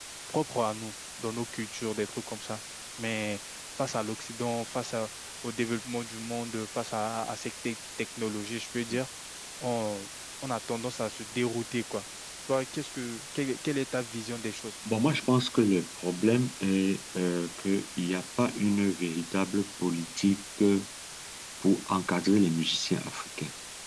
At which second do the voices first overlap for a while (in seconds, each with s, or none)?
none